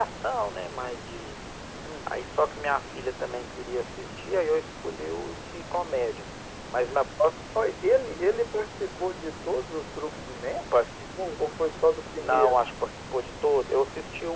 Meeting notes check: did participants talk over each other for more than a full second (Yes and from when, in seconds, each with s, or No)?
No